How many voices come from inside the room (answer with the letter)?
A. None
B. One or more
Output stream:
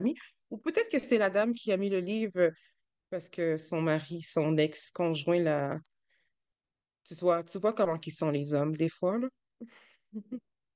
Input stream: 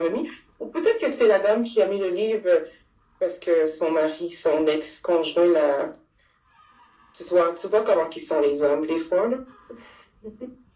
A